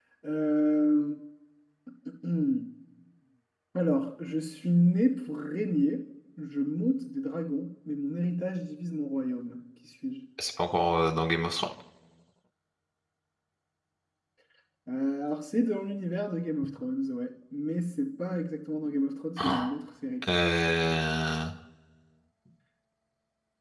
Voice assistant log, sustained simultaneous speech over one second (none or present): none